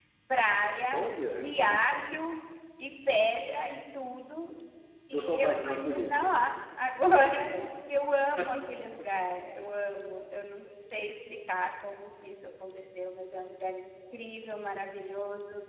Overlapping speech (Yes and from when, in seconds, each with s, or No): Yes, from 5.1 s